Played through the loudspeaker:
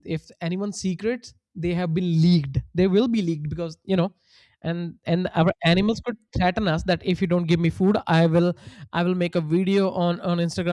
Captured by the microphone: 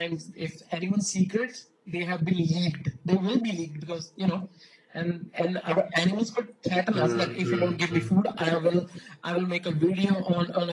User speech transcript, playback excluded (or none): mm, mm, mm.